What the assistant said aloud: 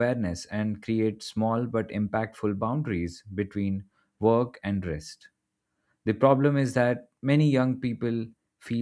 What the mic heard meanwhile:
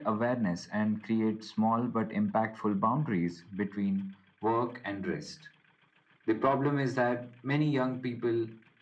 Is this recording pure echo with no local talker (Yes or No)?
Yes